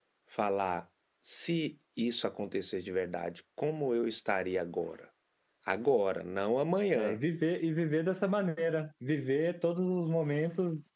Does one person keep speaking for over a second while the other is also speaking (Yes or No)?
No